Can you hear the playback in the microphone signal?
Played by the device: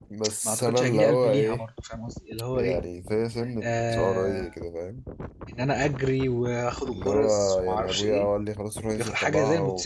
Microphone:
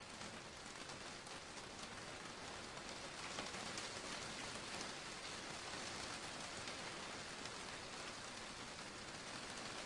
No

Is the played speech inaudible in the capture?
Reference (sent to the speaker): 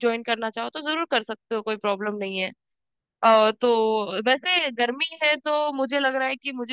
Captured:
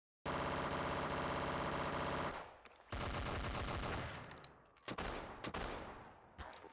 Yes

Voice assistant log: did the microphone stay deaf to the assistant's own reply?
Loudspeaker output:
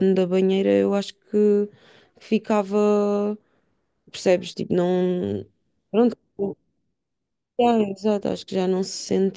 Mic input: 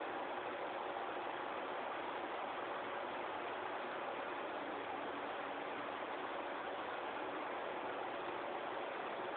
Yes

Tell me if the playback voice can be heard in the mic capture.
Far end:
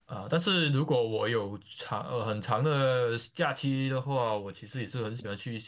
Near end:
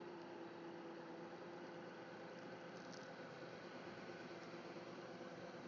No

